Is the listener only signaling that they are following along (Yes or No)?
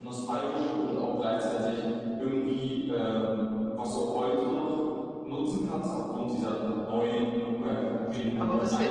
No